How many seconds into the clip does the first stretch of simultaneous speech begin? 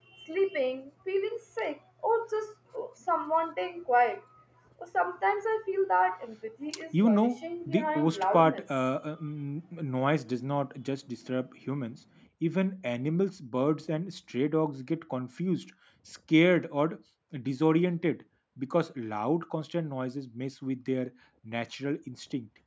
6.9 s

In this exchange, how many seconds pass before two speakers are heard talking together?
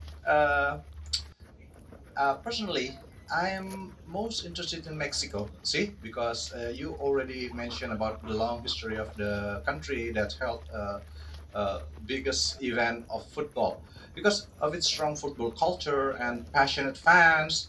none

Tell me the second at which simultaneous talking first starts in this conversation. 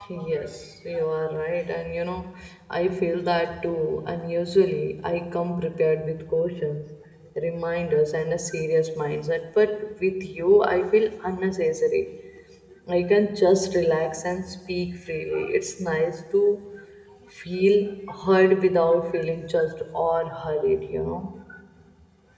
none

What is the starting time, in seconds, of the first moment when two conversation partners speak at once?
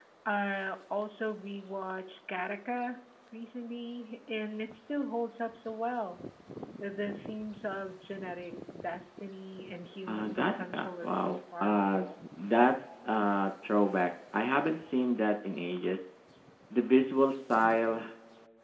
10.1 s

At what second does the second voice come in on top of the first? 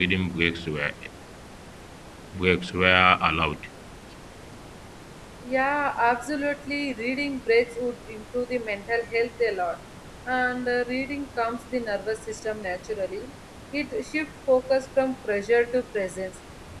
none

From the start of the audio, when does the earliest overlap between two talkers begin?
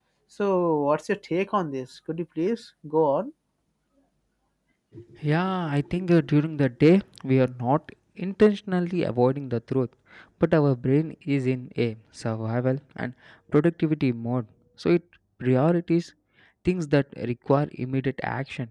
none

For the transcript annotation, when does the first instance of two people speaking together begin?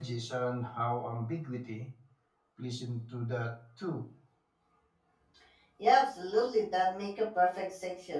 none

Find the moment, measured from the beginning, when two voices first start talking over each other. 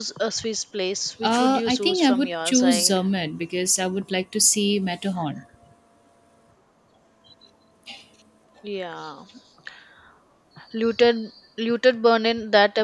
1.2 s

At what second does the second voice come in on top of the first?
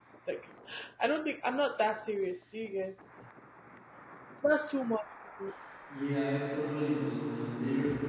none

